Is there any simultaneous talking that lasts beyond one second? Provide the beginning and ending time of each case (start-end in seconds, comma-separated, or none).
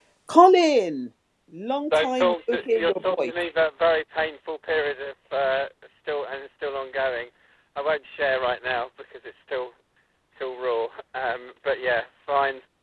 2.0-3.3